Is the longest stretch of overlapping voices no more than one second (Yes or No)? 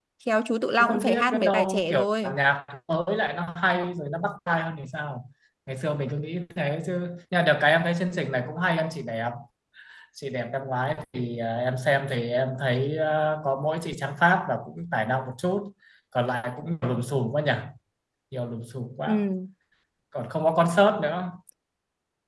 No